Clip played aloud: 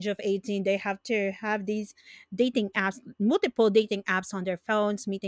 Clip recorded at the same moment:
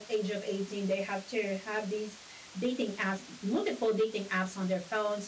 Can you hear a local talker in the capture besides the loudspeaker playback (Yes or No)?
No